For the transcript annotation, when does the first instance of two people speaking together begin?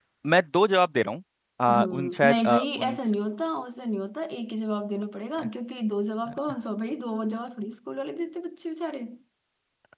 1.7 s

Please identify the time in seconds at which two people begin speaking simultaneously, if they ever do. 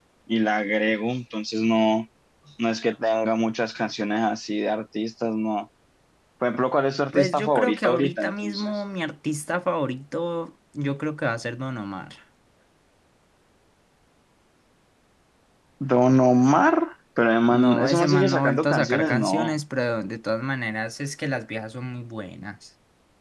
7.1 s

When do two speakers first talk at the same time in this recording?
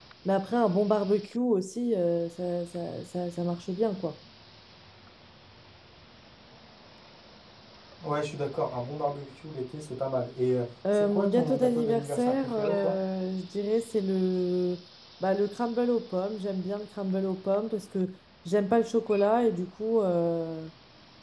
10.8 s

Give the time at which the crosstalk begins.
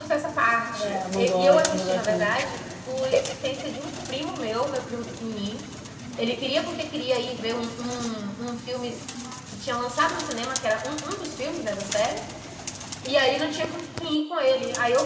0.7 s

